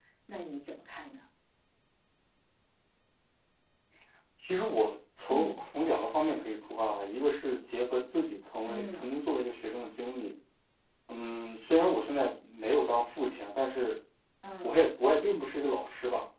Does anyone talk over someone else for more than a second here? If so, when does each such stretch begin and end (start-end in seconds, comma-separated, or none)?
none